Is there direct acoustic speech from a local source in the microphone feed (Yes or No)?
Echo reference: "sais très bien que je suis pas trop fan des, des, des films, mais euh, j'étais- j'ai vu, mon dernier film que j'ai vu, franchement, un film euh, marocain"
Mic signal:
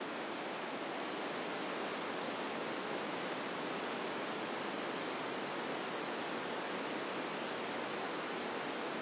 No